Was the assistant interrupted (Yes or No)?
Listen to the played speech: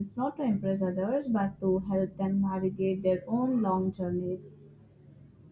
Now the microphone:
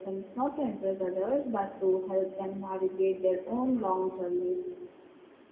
No